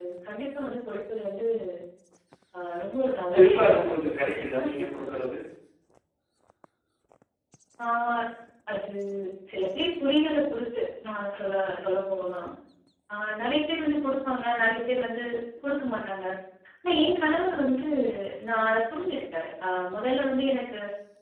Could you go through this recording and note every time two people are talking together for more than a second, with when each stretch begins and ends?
3.3-4.8

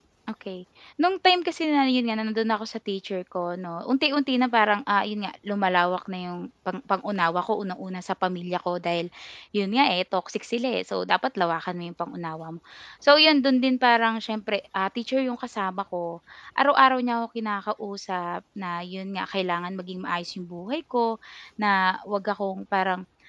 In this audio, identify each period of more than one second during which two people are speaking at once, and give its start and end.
none

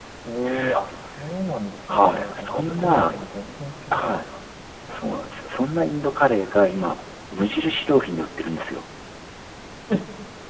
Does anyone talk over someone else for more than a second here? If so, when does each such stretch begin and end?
1.9-3.1

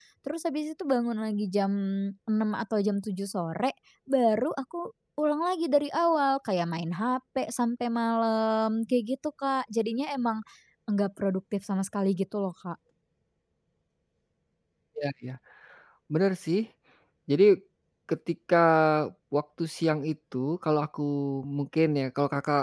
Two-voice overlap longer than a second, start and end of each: none

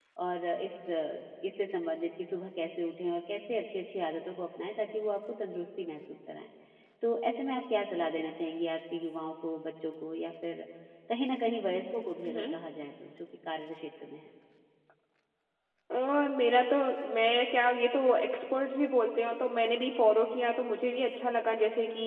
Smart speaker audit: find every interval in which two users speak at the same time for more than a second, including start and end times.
none

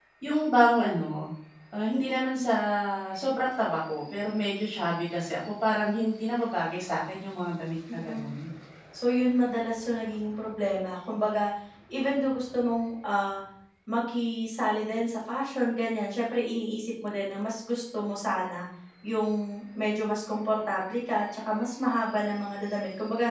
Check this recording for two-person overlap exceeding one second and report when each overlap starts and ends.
none

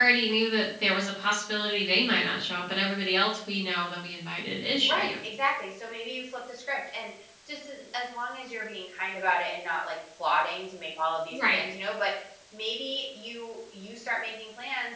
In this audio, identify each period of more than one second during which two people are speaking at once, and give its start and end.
none

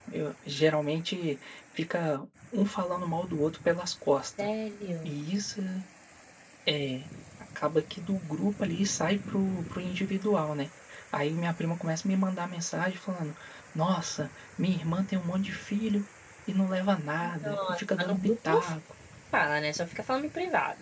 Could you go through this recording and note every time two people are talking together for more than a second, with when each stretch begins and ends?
17.2-18.6

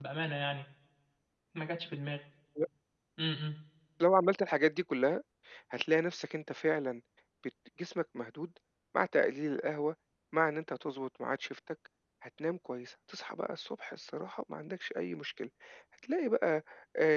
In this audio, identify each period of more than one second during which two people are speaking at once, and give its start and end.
none

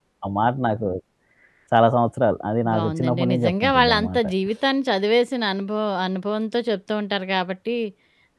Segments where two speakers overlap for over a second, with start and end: 2.7-4.2

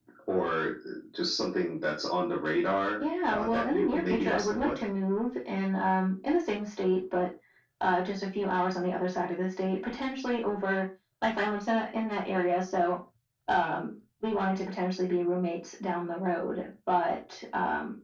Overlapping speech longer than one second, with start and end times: 3.3-4.8

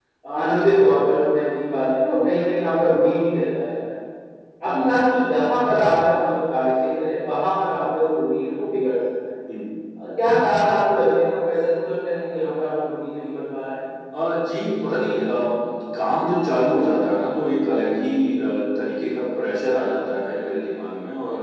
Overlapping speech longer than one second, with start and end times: none

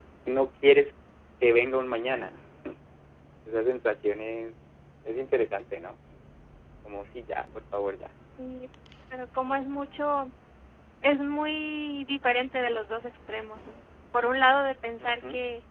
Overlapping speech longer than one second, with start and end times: none

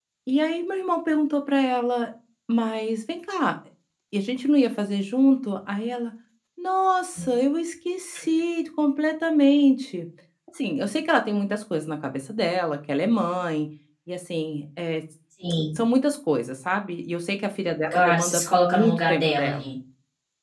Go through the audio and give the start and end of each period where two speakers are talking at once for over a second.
17.9-19.7

